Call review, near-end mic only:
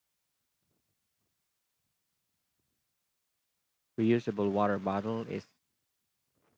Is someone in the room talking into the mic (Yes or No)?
Yes